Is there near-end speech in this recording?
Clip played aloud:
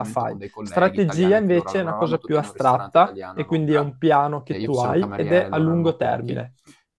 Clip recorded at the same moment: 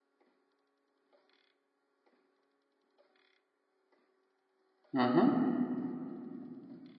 Yes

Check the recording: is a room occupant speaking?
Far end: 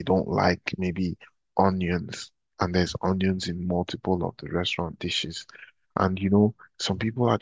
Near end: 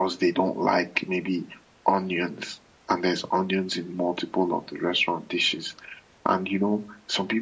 No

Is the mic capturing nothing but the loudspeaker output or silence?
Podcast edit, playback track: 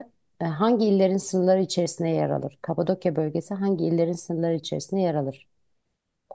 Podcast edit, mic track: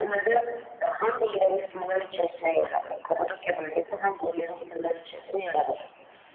Yes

